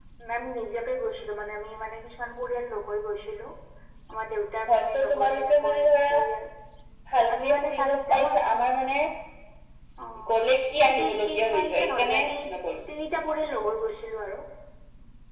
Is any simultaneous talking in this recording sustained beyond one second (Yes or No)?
Yes